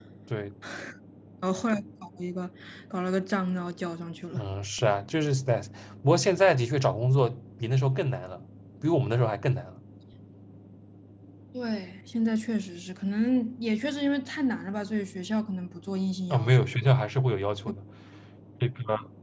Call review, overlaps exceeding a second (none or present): none